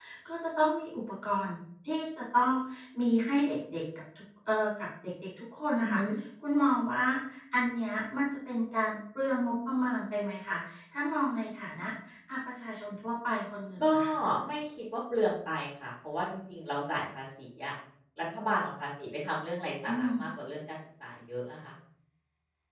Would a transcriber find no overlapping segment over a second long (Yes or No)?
Yes